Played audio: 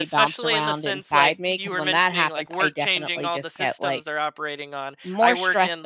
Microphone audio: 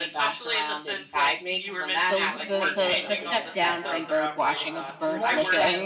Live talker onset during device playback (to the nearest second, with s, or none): 2 s